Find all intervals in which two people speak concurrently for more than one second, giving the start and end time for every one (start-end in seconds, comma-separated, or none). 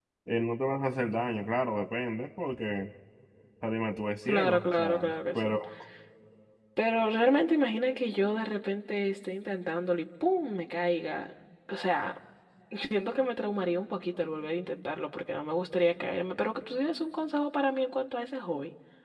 4.3-5.5